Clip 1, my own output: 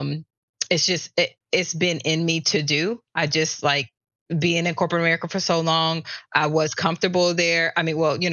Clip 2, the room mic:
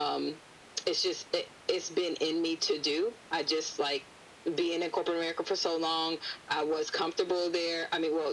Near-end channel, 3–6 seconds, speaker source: echo only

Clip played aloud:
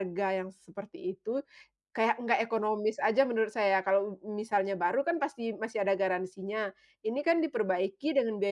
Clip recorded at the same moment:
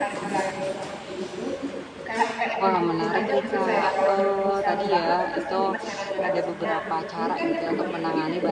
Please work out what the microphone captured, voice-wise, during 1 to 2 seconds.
echo only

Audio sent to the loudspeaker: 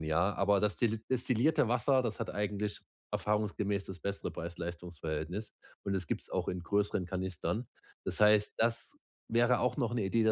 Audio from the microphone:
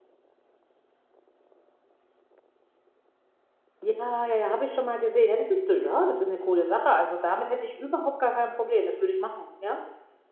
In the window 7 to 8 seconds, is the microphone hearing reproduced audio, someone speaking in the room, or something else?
user only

